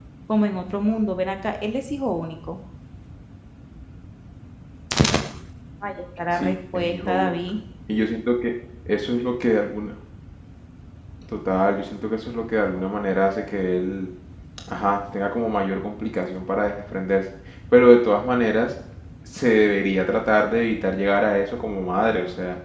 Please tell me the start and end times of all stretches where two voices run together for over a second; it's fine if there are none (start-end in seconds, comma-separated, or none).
6.3-7.6